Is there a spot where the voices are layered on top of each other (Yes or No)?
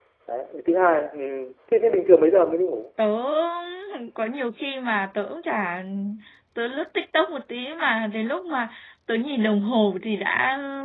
No